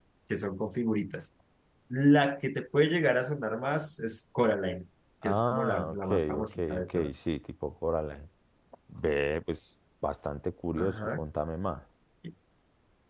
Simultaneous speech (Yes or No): Yes